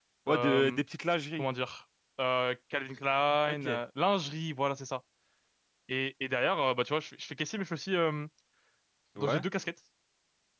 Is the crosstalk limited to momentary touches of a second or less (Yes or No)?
Yes